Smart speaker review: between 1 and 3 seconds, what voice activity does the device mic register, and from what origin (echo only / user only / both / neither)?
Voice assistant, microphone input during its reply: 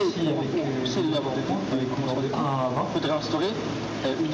both